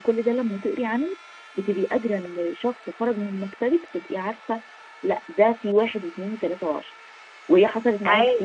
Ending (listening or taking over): listening